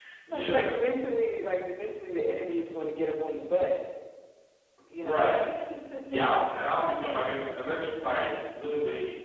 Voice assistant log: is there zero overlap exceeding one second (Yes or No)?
Yes